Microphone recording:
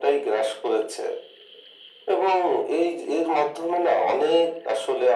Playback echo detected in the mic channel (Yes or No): Yes